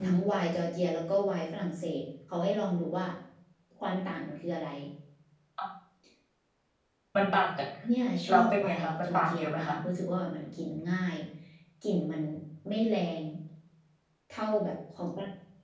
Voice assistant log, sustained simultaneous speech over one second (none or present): present